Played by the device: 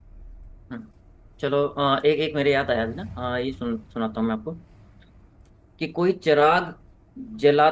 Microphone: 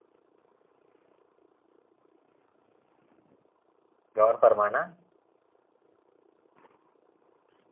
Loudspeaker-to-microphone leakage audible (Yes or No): No